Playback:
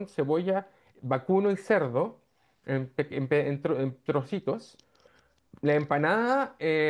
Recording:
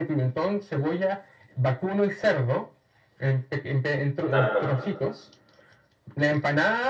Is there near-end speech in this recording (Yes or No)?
Yes